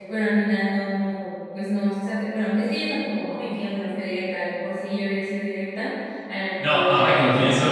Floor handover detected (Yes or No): Yes